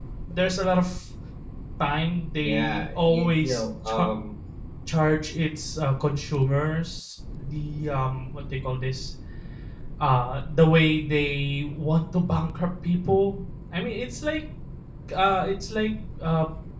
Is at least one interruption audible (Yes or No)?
Yes